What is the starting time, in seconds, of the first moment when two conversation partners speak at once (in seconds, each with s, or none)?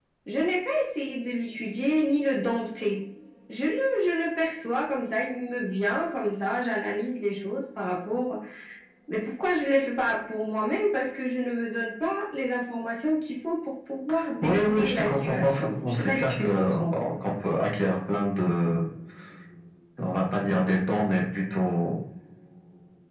14.4 s